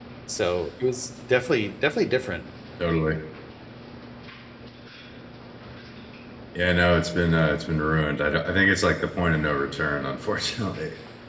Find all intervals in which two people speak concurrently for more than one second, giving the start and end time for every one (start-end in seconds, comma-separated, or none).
none